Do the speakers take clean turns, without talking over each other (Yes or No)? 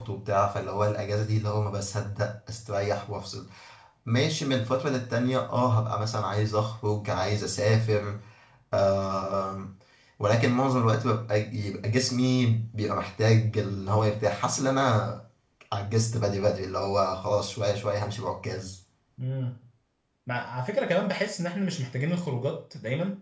Yes